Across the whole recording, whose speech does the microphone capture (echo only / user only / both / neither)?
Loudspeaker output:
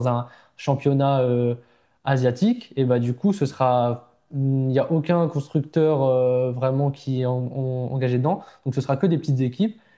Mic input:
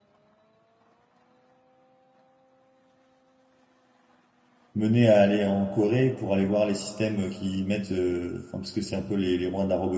user only